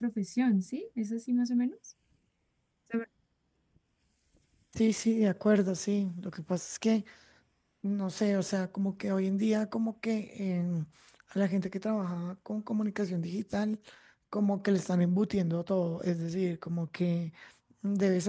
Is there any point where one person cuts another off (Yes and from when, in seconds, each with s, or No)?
No